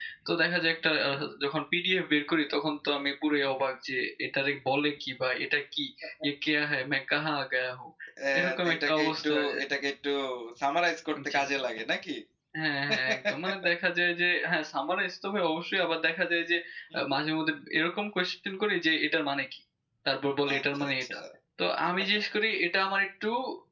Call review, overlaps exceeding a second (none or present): present